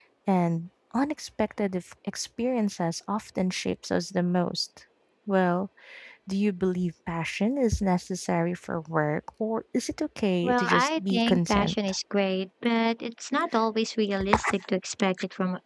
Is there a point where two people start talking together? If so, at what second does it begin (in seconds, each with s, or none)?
10.4 s